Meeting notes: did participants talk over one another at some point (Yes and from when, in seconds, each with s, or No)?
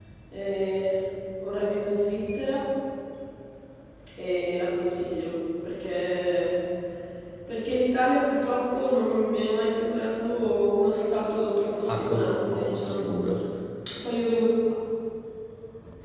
Yes, from 11.9 s